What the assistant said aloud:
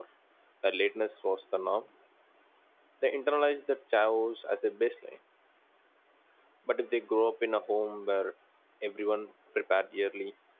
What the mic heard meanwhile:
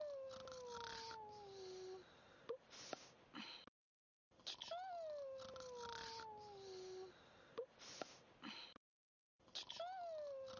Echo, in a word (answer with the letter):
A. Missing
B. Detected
A